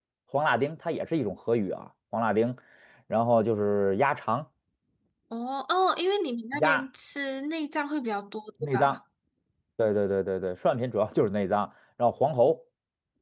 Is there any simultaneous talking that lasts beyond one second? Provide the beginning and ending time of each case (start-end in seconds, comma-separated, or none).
none